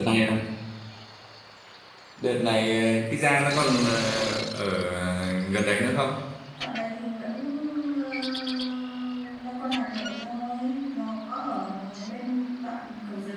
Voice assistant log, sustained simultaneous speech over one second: none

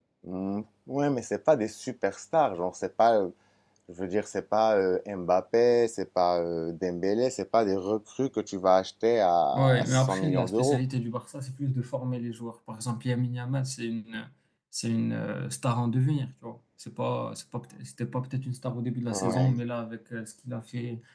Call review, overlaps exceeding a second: present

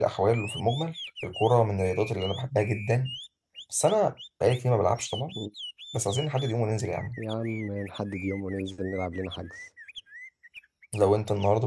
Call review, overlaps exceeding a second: none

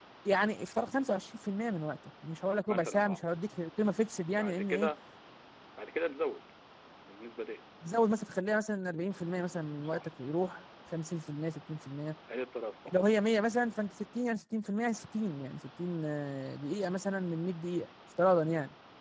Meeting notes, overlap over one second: none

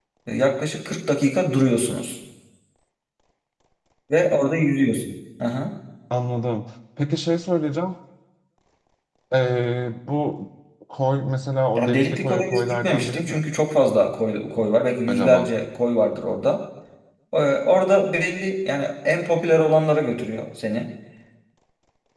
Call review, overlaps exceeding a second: present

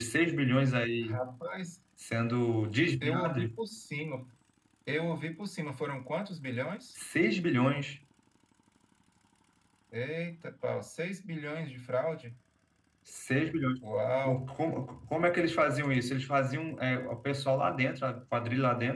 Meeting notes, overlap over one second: none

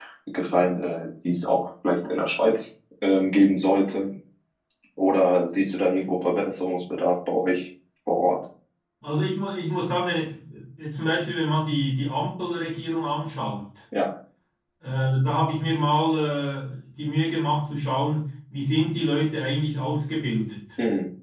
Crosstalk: none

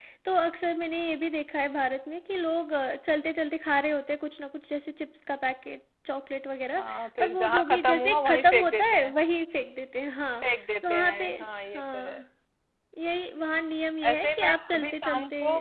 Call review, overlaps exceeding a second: present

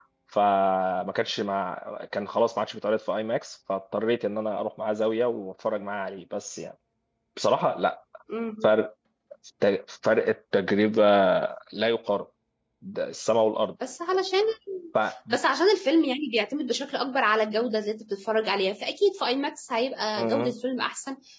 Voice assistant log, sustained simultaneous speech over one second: none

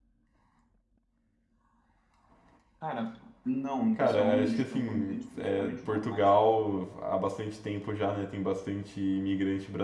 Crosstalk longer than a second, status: present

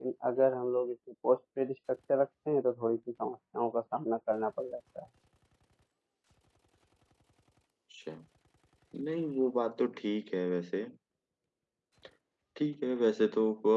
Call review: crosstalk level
none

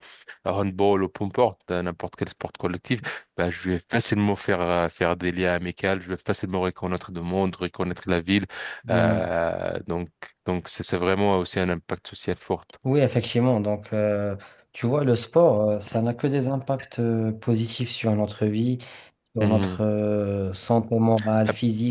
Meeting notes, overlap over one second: none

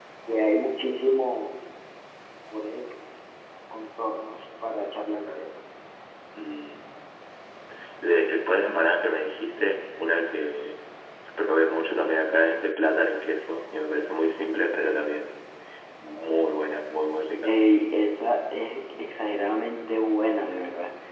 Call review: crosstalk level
none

